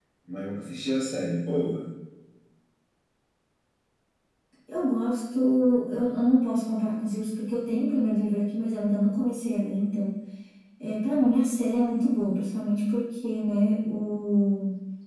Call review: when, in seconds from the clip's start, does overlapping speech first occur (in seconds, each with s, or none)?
none